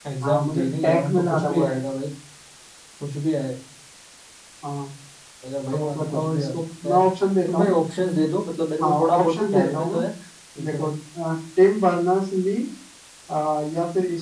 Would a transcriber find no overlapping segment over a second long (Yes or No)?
No